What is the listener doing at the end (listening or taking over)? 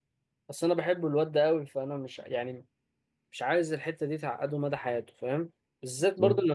listening